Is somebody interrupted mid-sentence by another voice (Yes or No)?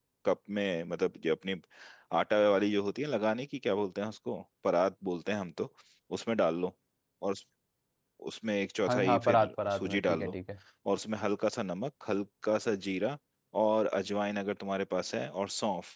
Yes